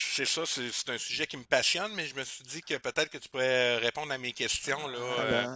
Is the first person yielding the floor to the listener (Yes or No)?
Yes